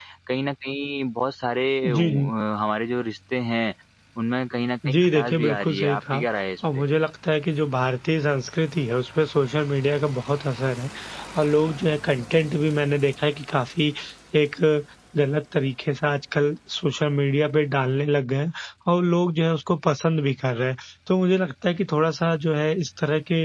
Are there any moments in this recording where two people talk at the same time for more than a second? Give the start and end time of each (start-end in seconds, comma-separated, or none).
4.9-6.2